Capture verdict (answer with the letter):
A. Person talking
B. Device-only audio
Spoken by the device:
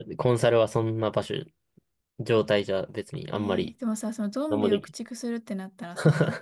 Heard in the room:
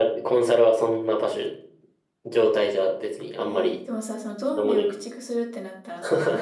B